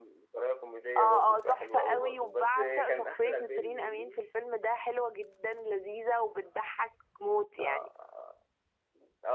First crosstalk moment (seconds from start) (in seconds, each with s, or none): 1.0 s